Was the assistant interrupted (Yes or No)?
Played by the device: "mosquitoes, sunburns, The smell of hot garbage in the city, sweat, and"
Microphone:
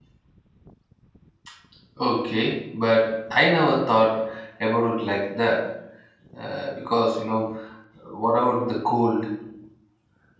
Yes